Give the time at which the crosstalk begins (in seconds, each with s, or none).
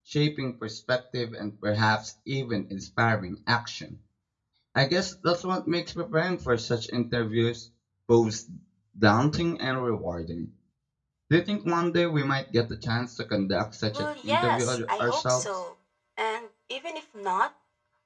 13.9 s